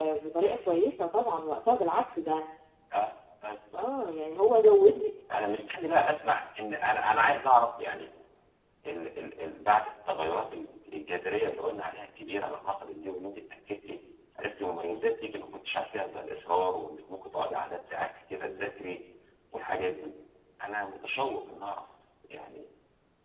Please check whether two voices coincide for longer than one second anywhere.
No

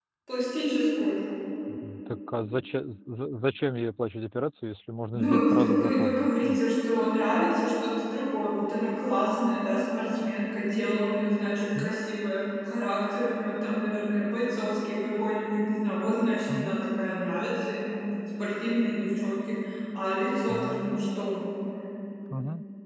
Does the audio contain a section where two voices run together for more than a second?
Yes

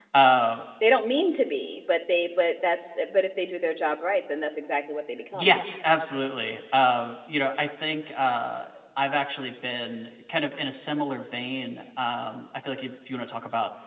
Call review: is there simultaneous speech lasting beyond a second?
No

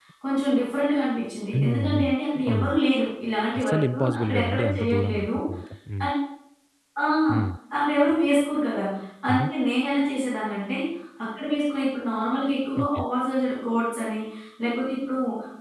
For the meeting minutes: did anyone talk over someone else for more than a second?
Yes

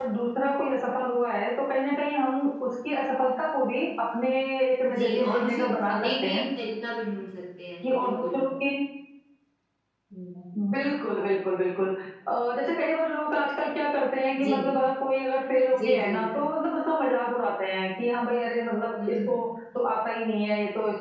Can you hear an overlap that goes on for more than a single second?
Yes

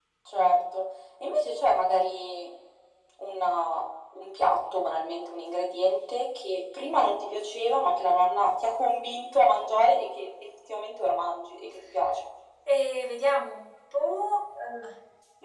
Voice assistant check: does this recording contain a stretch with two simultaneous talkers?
No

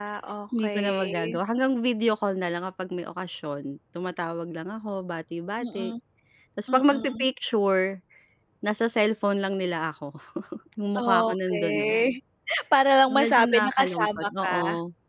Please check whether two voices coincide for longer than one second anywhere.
Yes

